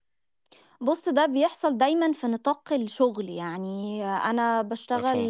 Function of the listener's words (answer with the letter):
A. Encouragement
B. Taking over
A